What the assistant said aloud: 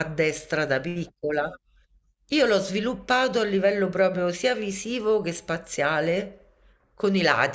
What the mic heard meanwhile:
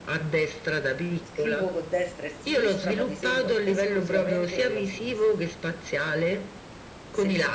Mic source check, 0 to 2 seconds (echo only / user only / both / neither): both